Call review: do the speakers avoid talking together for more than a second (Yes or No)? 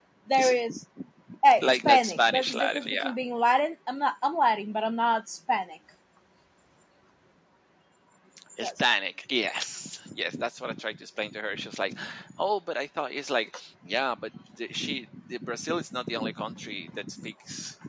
No